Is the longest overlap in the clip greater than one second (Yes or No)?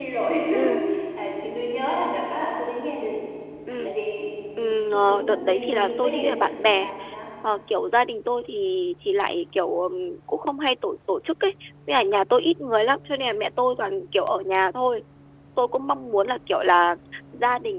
Yes